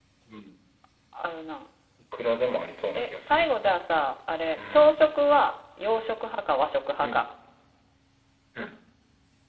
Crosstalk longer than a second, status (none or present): none